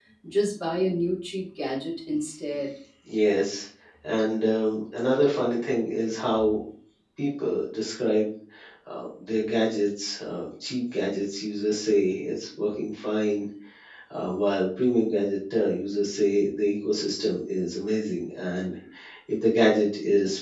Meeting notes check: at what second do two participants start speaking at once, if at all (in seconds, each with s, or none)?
none